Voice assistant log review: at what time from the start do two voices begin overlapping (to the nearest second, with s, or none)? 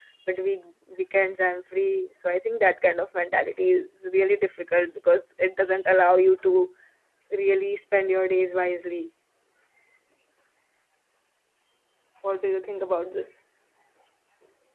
none